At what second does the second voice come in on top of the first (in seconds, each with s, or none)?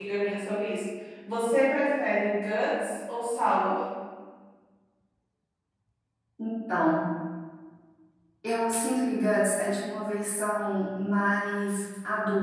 none